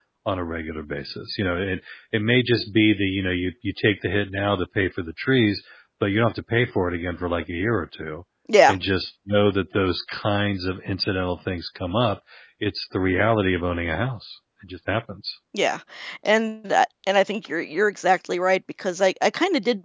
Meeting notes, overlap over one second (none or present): none